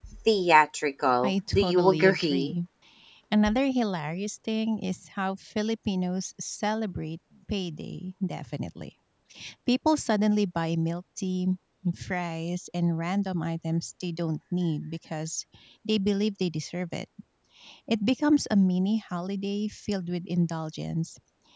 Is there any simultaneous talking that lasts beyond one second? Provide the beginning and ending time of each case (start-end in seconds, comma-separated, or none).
1.2-2.5